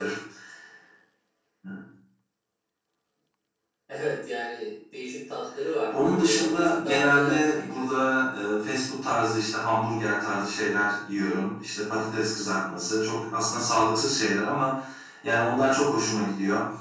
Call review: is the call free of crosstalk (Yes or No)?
No